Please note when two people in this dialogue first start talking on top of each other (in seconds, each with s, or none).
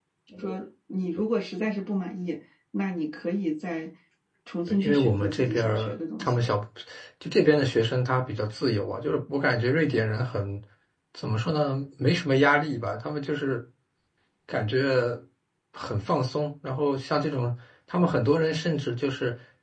4.8 s